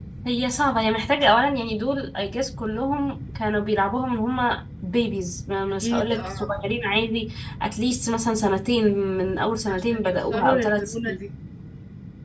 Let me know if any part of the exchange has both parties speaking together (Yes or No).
Yes